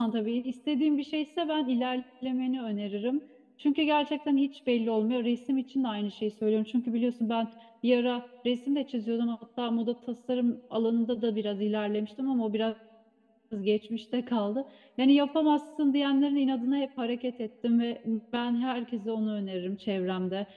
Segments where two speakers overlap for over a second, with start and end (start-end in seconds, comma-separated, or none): none